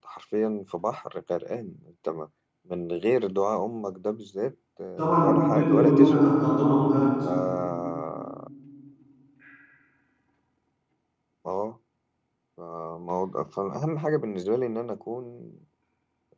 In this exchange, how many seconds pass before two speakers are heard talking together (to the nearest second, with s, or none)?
5 s